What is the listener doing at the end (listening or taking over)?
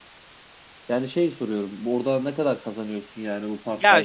taking over